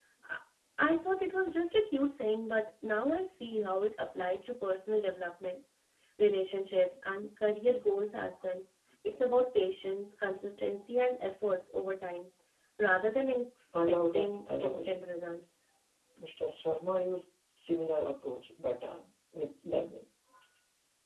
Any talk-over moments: Yes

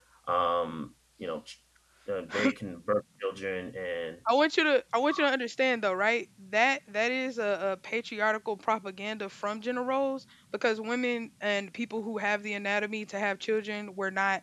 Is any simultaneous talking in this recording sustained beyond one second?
No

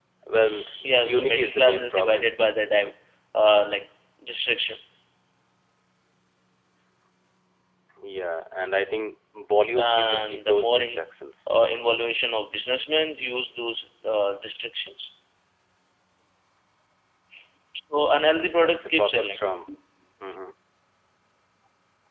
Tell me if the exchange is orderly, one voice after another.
No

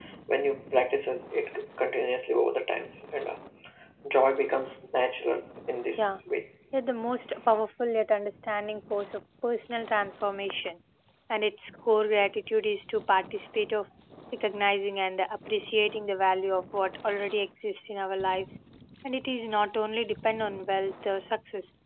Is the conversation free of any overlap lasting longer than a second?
Yes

